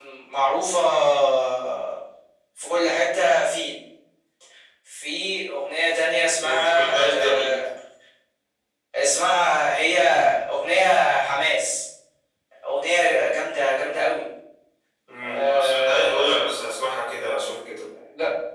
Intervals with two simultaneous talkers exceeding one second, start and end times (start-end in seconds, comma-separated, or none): 6.4-7.7, 15.2-16.5